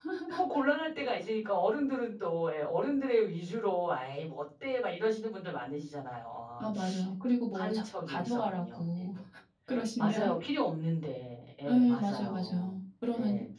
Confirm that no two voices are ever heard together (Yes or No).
No